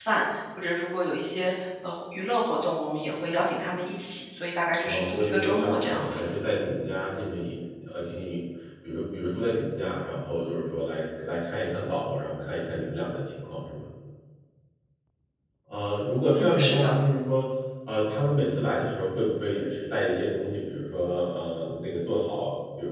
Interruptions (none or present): present